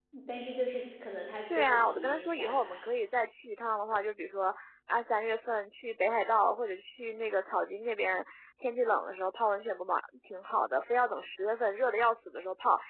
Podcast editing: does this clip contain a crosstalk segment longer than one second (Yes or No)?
Yes